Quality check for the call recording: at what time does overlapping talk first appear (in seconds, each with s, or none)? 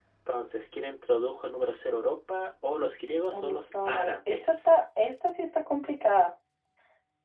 3.3 s